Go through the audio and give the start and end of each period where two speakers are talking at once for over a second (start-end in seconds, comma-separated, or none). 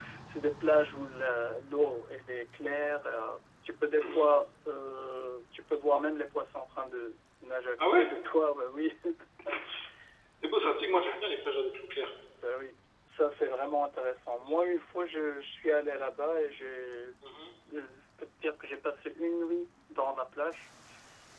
none